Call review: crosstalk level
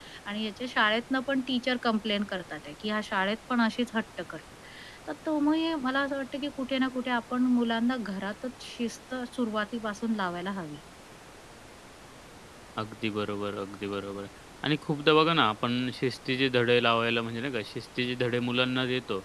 none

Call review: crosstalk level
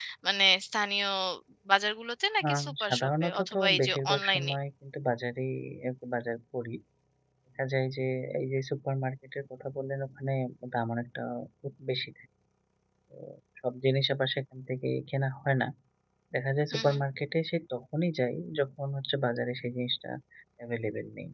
present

